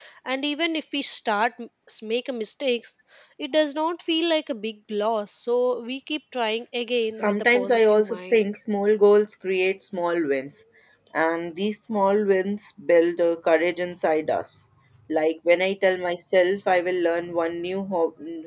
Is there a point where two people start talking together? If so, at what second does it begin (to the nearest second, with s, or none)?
7 s